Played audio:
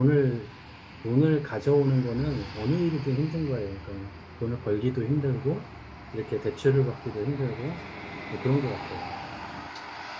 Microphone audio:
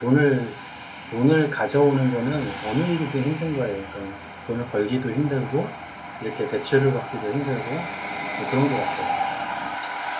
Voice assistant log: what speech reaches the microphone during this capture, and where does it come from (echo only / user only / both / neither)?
echo only